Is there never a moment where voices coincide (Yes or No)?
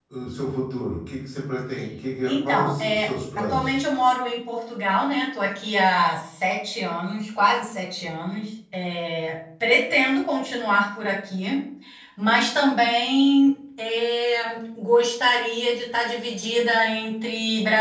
No